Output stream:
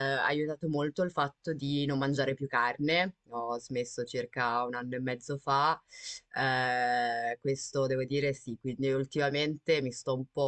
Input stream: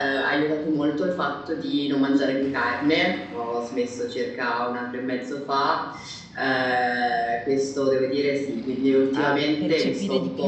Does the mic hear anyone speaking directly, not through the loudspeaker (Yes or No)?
Yes